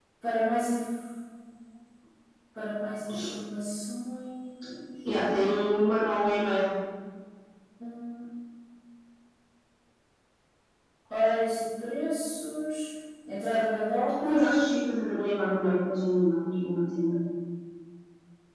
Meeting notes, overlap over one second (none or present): none